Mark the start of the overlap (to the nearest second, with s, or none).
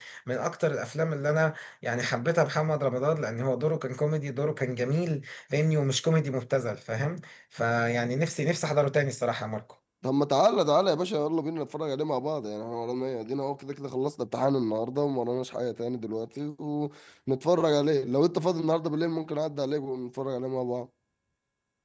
none